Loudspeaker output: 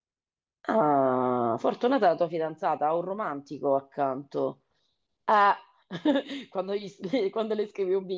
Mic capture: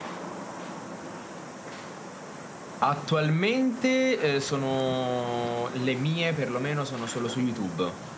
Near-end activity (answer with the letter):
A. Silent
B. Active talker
B